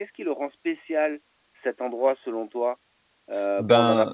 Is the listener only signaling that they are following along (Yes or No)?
Yes